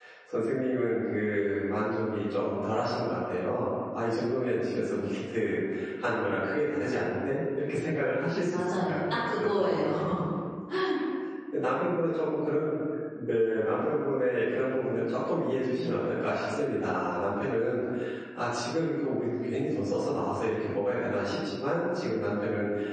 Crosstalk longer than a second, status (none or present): present